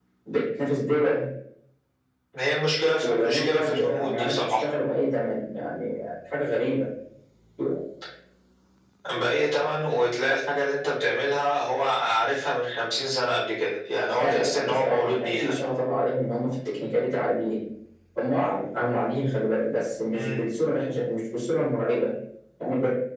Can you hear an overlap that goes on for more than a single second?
Yes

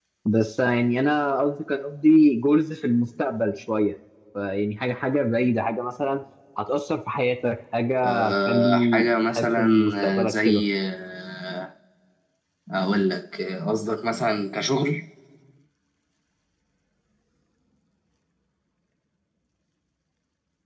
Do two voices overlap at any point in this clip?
Yes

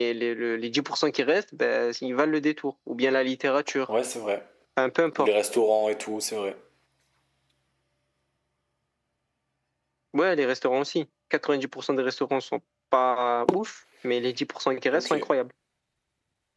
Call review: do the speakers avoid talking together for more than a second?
Yes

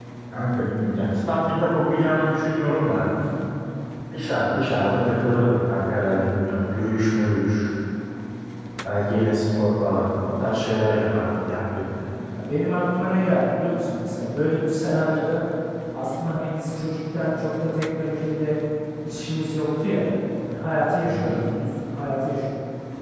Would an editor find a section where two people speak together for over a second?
No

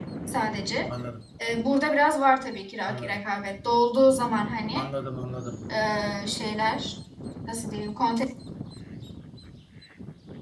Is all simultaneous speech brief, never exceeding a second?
Yes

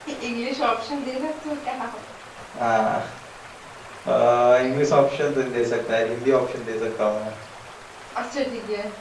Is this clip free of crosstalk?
Yes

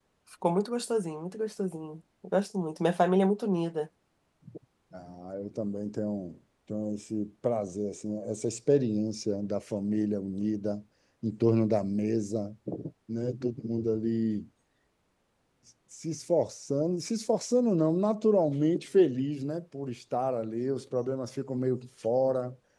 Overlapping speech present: No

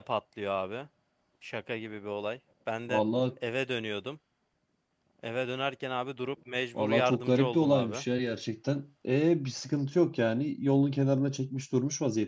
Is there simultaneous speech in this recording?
Yes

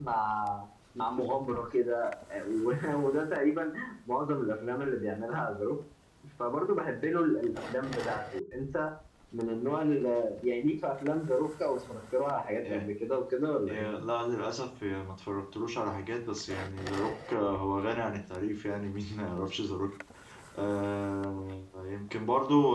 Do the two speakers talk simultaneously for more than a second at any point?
No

